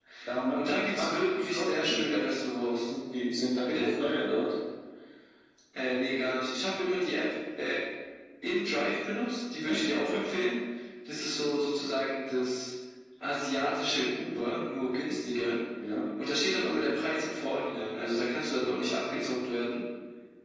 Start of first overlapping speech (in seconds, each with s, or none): 0.5 s